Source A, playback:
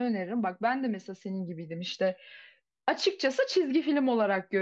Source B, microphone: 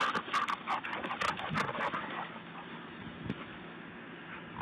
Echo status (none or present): none